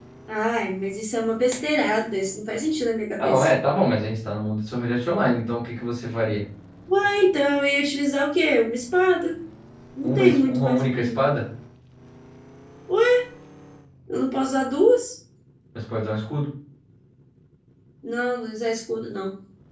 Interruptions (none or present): present